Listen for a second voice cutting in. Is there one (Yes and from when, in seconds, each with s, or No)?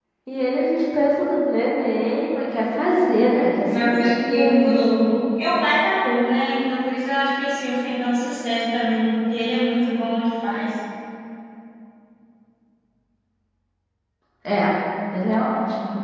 Yes, from 3.7 s